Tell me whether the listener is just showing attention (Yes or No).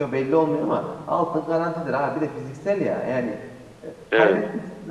Yes